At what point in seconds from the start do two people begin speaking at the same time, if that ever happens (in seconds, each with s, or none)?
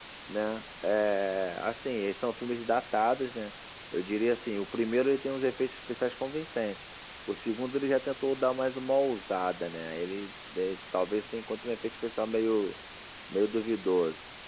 none